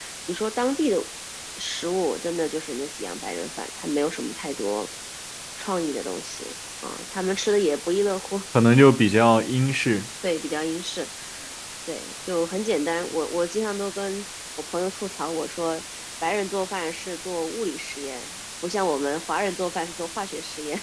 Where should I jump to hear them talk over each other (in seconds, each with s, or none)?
none